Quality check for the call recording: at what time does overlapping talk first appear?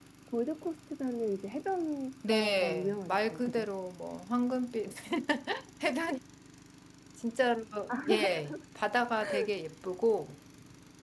2 s

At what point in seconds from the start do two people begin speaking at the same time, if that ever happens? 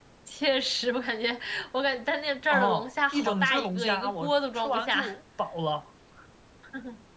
2 s

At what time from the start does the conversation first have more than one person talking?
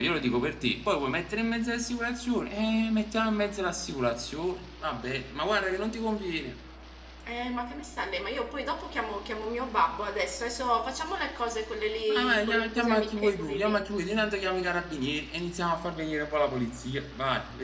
12 s

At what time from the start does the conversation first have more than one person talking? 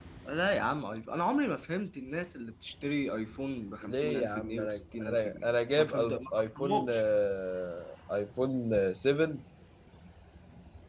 4 s

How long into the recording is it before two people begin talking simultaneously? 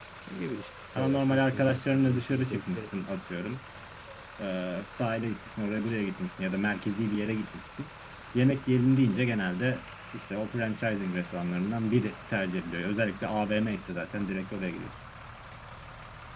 1 s

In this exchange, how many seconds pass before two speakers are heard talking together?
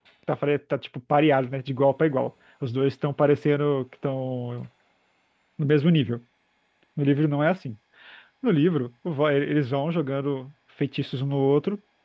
none

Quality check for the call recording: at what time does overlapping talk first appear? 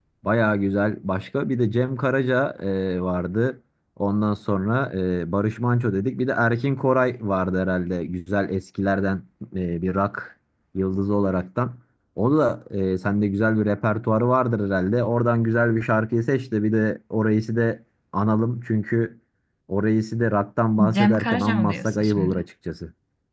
21 s

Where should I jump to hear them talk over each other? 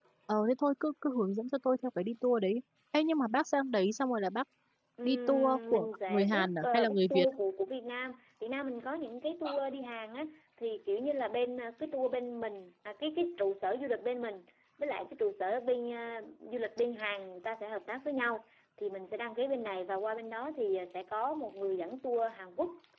5 s

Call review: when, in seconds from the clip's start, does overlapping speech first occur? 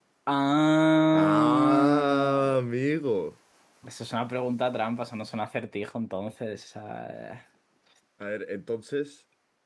1 s

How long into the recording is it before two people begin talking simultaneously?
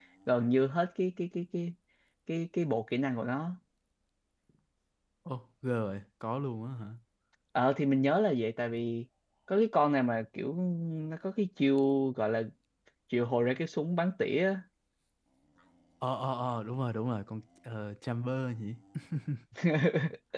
none

